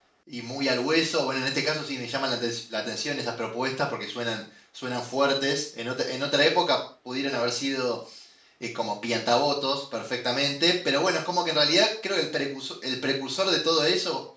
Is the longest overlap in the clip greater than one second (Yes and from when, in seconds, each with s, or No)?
No